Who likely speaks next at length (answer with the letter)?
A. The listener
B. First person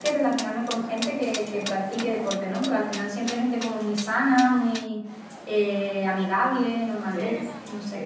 A